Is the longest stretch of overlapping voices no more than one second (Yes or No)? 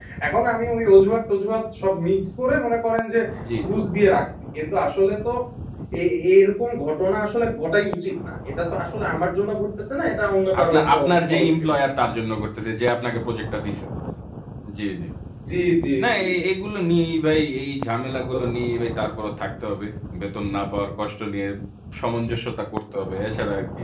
Yes